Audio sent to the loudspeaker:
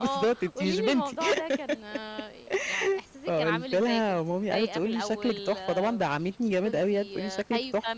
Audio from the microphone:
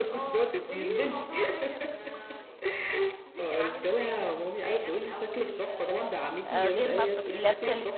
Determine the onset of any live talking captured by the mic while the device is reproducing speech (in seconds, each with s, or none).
6.5 s